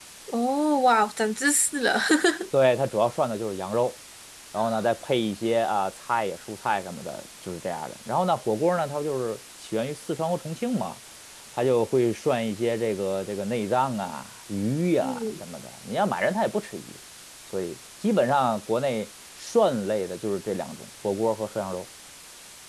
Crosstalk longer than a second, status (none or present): none